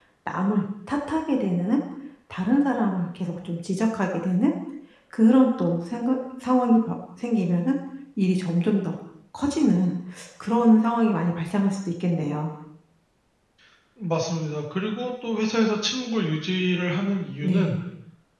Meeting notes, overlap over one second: none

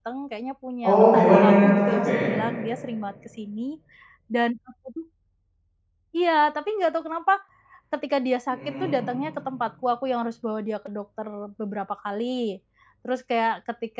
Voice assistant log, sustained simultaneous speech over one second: present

